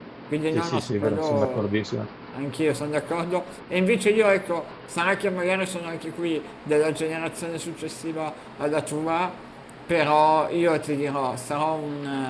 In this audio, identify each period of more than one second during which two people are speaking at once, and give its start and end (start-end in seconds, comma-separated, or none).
0.5-1.7